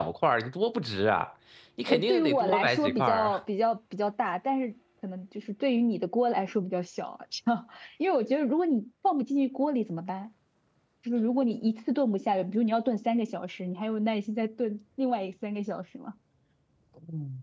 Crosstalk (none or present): present